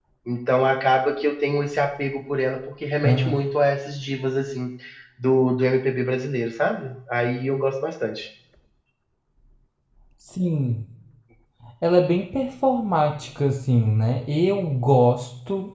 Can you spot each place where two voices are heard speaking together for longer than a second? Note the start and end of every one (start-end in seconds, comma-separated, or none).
none